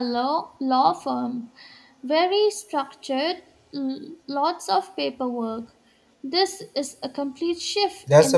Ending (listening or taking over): taking over